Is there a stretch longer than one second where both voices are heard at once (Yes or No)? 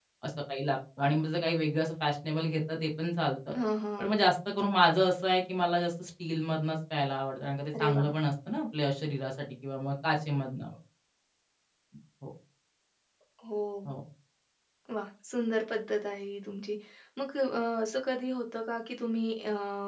No